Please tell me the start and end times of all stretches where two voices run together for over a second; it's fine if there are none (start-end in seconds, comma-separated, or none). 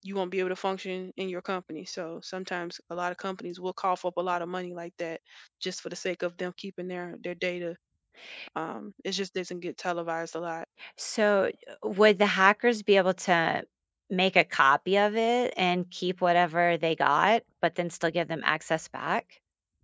none